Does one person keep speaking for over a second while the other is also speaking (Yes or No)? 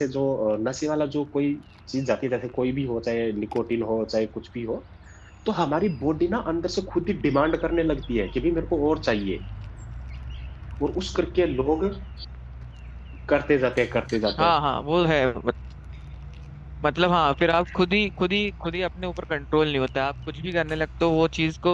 No